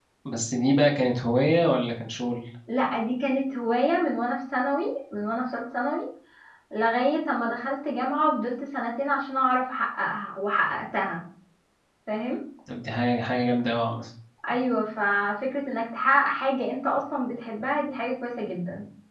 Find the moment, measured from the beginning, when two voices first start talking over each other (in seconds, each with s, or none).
none